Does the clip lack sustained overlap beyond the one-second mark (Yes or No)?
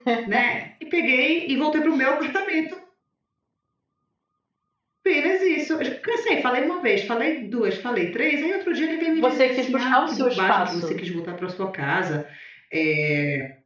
No